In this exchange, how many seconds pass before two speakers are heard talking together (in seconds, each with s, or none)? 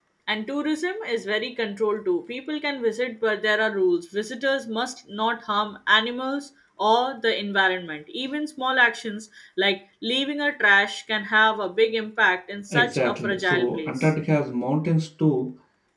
12.7 s